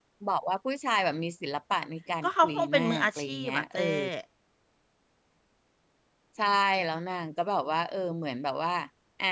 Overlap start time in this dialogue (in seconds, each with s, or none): 2.2 s